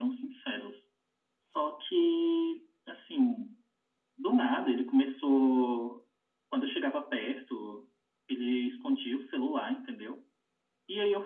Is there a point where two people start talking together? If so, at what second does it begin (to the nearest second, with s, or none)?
none